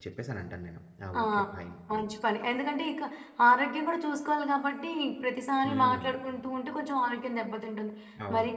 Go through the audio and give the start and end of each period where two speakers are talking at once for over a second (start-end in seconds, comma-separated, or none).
none